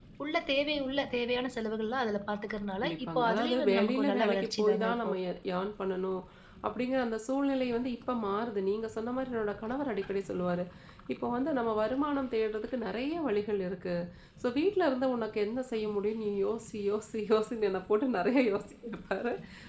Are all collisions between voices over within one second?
No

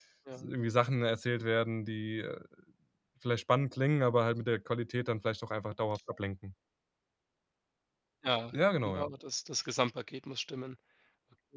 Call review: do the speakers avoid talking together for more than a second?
Yes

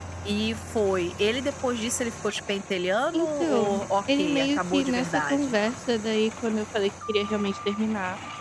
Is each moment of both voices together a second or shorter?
No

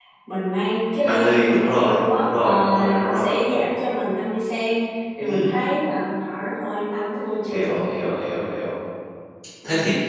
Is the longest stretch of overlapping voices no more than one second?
No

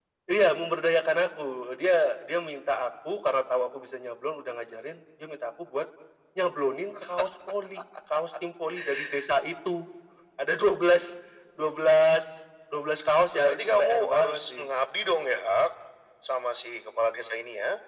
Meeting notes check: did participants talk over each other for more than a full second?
Yes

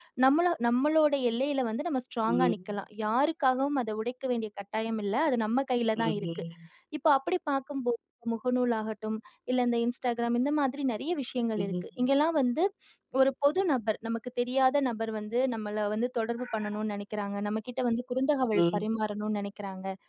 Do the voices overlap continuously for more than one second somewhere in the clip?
No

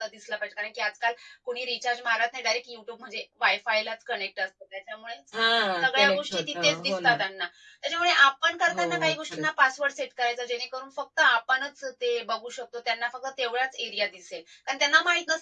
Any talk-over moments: Yes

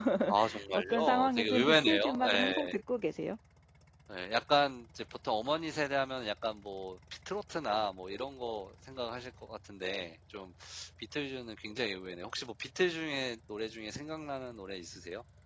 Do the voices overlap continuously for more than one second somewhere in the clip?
Yes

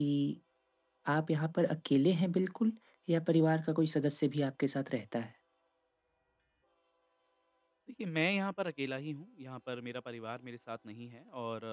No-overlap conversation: Yes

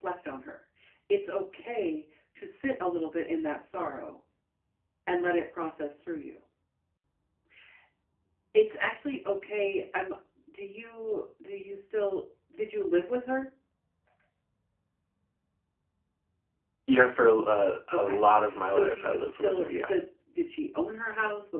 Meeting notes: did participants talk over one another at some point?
Yes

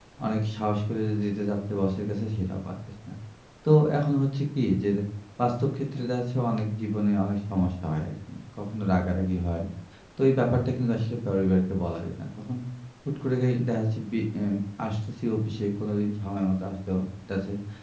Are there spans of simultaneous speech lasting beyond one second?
No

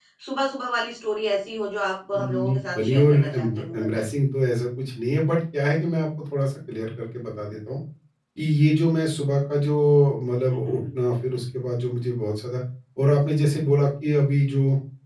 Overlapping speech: Yes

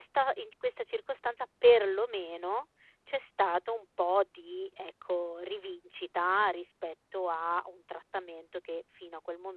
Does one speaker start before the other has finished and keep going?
No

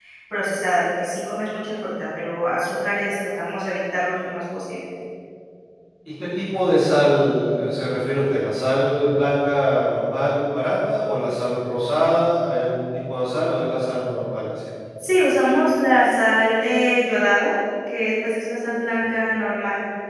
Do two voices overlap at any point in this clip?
No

